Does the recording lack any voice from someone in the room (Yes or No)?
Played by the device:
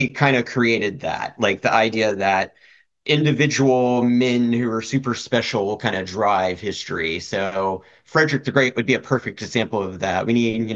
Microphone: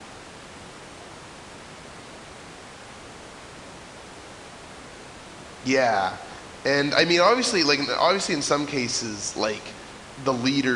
No